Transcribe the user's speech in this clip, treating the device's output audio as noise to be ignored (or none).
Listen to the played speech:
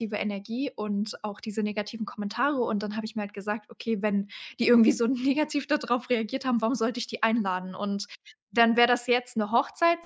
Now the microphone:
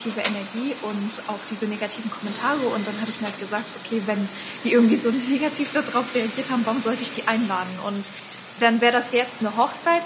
none